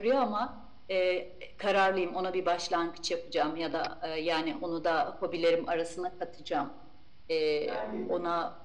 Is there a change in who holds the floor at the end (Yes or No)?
No